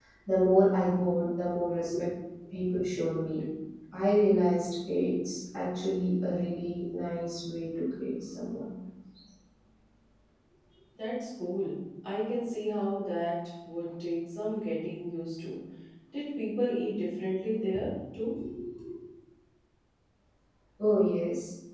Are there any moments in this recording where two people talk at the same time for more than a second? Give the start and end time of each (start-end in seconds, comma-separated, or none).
none